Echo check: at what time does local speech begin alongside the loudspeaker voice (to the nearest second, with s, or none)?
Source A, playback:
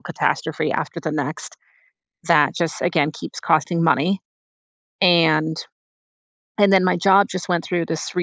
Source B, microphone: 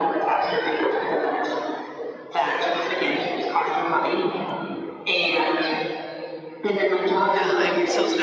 7 s